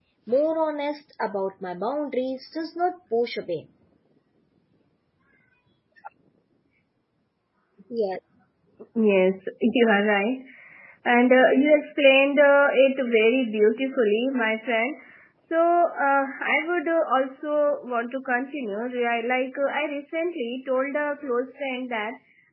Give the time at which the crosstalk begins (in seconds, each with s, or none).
none